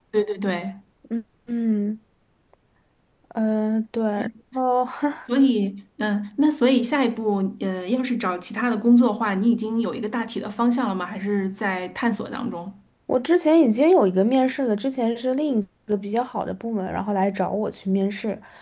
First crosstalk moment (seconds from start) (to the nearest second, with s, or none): none